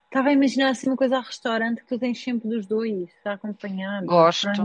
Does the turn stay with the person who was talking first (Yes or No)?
No